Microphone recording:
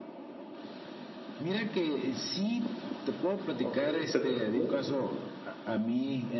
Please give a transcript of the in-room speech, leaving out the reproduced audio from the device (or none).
okey, te comprendo.